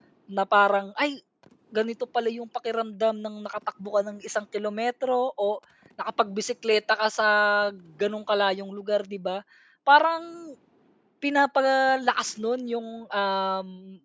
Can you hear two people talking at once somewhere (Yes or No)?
No